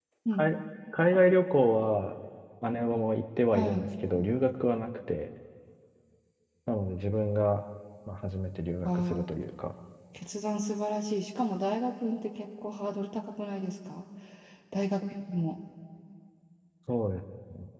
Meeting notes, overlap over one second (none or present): none